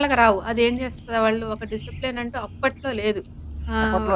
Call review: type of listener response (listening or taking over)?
listening